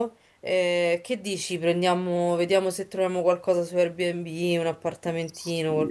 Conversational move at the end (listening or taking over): taking over